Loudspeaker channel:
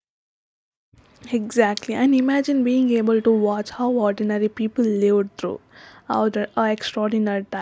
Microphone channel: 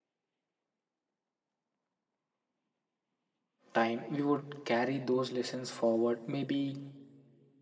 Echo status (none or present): none